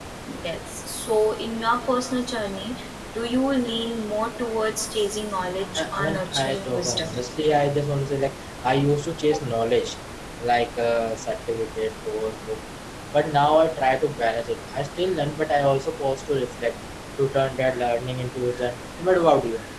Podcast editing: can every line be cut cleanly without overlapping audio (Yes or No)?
No